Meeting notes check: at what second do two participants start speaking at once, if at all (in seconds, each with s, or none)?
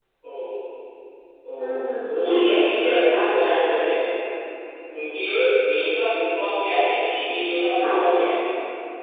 1.6 s